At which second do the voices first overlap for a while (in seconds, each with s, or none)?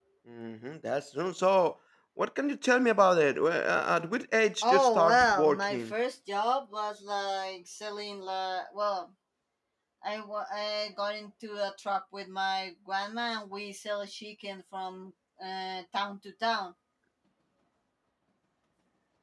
4.6 s